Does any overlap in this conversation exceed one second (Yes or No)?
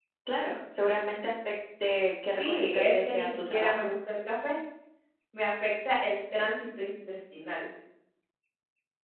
Yes